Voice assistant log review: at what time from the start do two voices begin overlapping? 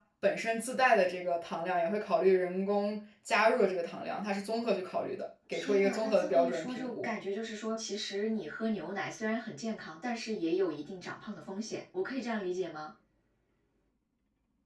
5.5 s

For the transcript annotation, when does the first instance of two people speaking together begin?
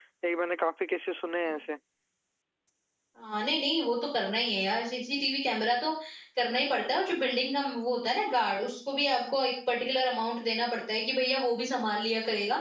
none

